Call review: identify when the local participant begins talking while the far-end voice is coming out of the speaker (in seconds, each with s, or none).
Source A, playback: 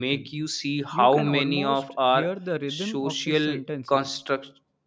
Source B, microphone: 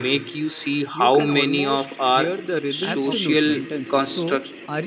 2.8 s